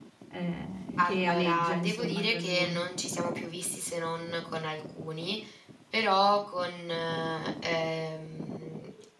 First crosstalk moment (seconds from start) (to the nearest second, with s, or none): 1 s